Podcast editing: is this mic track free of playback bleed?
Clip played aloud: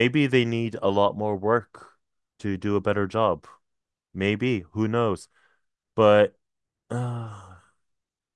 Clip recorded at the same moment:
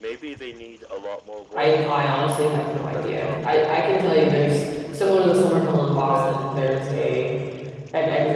No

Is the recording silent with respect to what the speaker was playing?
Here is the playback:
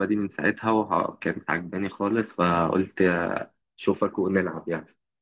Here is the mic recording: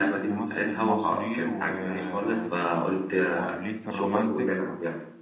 No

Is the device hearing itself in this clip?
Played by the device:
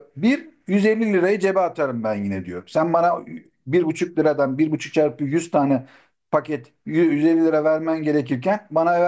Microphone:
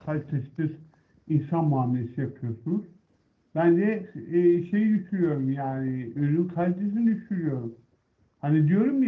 No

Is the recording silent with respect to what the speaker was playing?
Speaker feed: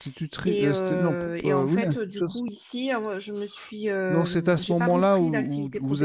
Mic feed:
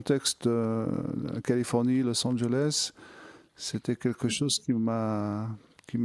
Yes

